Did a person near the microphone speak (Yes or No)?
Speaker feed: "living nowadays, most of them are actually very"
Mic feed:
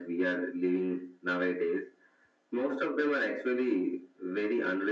No